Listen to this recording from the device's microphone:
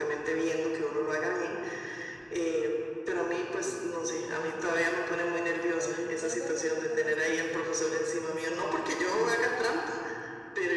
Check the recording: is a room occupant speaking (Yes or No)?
Yes